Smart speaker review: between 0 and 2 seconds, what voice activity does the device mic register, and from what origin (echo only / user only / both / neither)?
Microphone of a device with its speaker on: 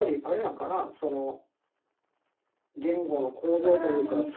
echo only